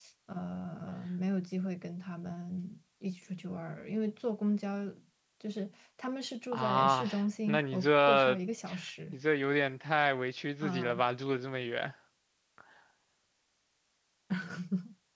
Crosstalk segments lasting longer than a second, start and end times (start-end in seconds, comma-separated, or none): 6.5-8.4